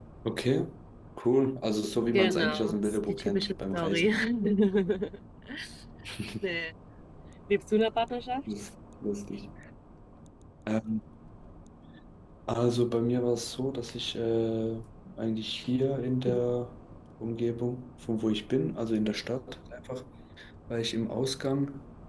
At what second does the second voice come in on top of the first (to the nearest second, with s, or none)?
2 s